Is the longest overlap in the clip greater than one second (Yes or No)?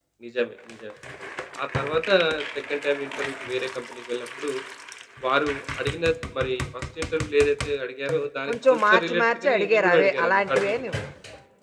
Yes